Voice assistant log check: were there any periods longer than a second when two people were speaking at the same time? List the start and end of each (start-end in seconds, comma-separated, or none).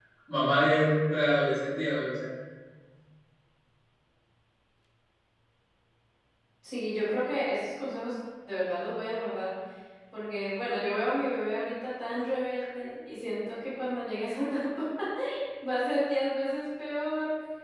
none